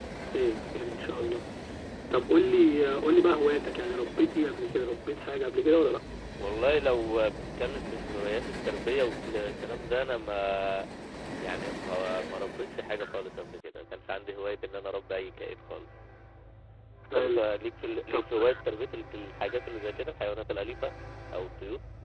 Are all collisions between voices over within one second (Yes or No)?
Yes